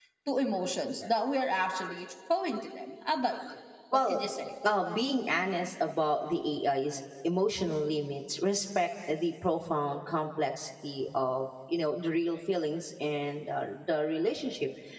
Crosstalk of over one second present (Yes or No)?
No